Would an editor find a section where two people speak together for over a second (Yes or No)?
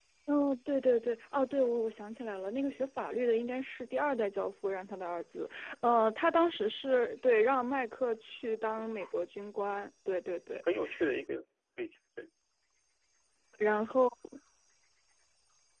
No